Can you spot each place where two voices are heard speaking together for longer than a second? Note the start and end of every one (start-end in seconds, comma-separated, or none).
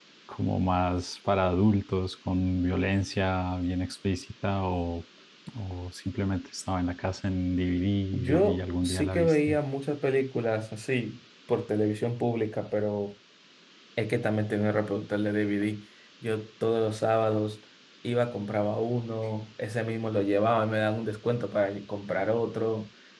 8.1-9.6